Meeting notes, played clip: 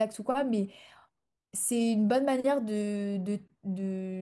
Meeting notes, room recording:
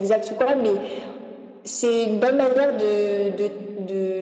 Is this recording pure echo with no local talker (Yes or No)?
Yes